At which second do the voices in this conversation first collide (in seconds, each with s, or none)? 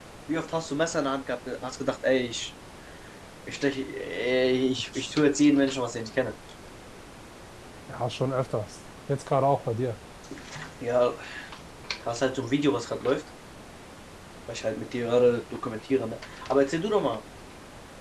none